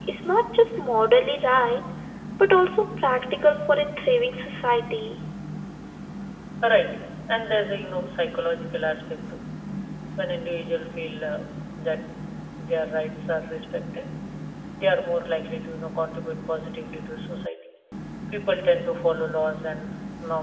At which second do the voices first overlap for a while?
none

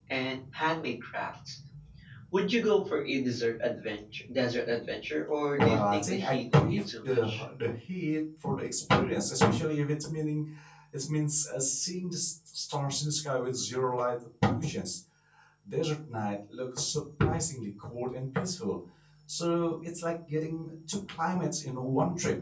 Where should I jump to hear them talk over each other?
6 s

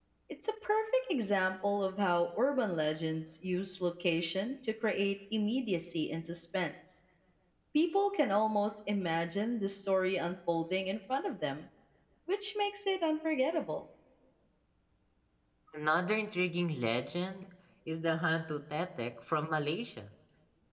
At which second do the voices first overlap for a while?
none

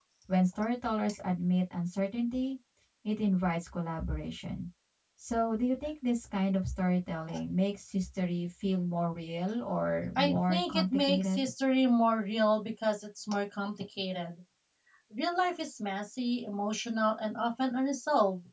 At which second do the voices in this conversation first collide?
10 s

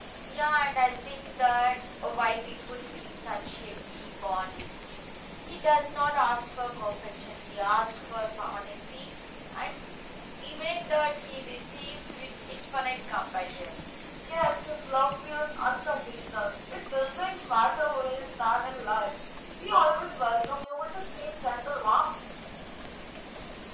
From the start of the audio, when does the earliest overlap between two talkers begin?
none

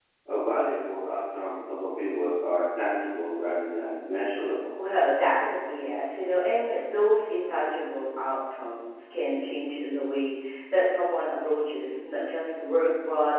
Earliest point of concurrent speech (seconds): none

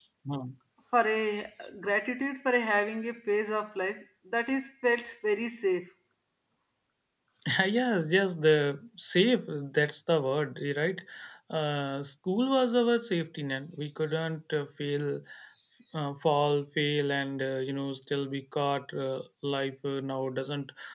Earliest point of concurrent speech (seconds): none

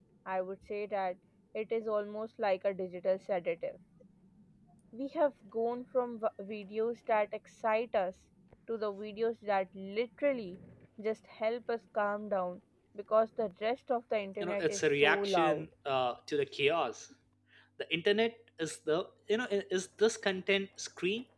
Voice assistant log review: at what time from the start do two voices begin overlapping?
14 s

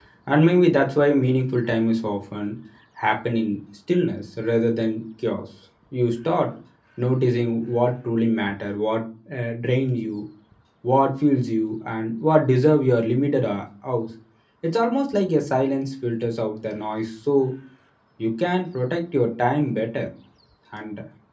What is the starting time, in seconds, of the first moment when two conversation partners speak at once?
none

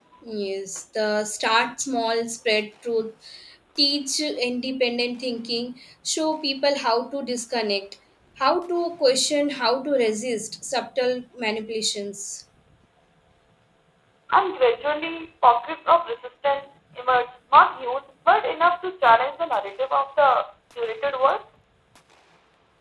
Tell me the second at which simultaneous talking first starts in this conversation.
none

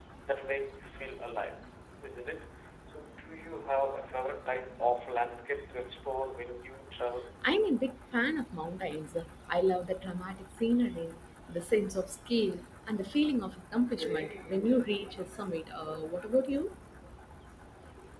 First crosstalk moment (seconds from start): none

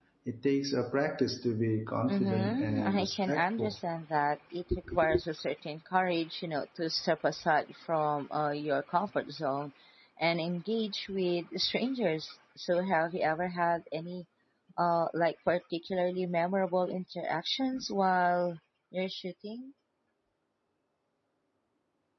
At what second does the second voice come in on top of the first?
2 s

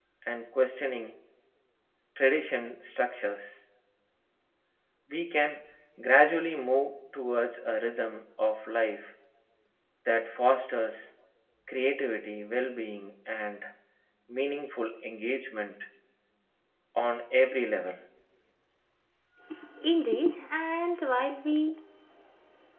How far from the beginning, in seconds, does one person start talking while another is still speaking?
none

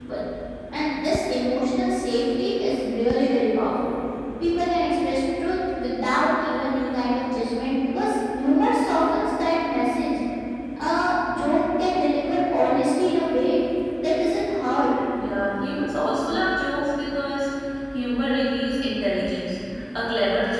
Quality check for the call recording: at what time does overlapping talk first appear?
none

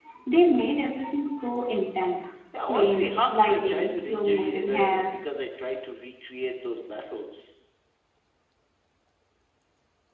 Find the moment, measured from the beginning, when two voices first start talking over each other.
3 s

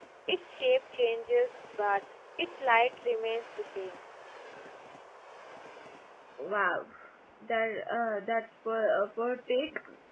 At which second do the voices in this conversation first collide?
none

